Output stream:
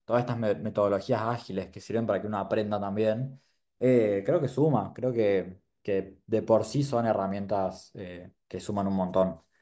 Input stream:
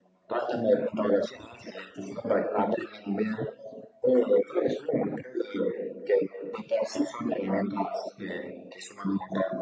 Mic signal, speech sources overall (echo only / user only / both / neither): echo only